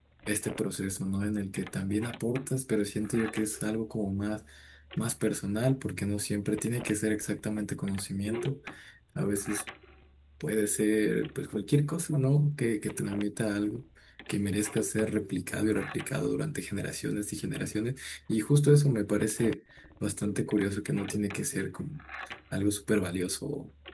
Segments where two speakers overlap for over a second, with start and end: none

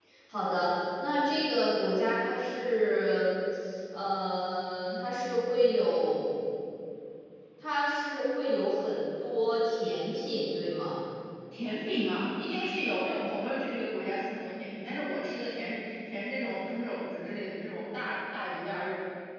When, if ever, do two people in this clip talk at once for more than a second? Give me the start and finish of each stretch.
none

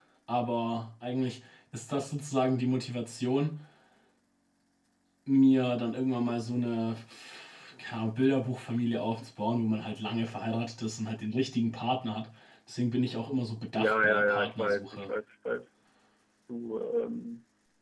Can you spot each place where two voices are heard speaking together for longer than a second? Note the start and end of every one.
13.7-15.1

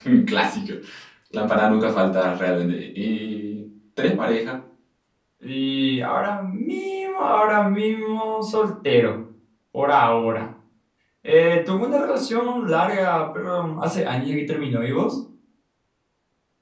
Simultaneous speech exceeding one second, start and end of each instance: none

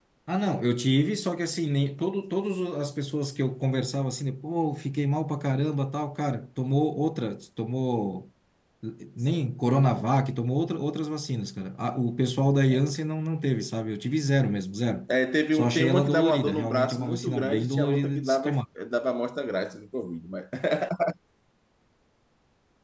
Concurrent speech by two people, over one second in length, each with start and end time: 15.5-18.5

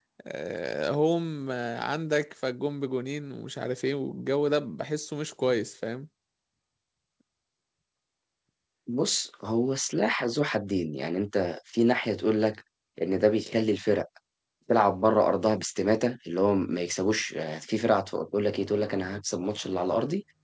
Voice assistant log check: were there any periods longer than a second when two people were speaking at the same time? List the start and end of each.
none

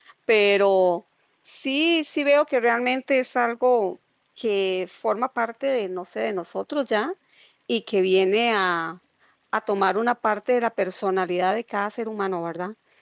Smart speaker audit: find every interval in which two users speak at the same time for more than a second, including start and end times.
none

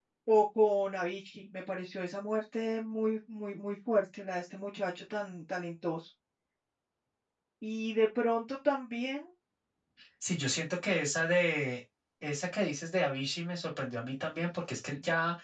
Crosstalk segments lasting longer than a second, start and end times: none

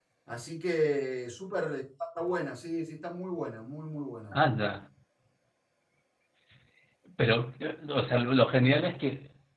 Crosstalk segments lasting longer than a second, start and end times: none

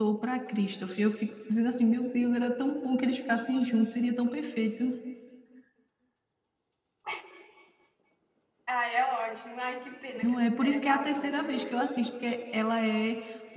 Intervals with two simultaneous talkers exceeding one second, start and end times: 10.2-11.8

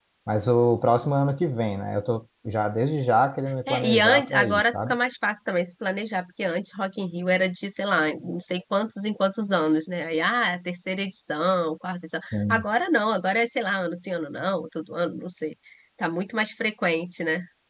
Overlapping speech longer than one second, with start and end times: 3.7-5.0

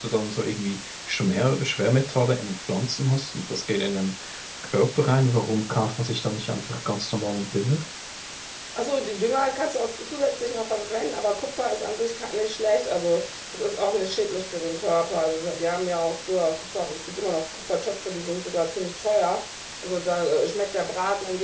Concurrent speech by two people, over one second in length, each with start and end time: none

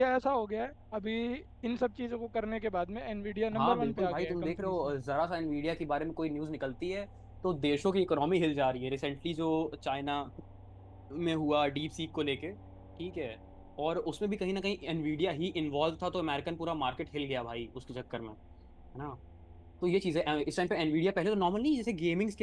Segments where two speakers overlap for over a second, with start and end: 3.5-4.9

